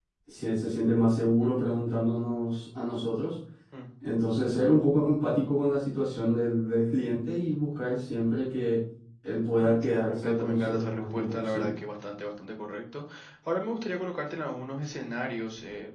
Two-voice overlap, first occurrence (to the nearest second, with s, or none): 10 s